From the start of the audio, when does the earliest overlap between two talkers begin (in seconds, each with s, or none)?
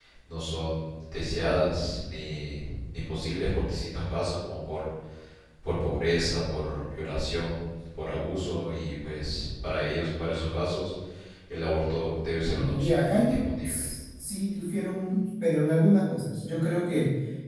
12.4 s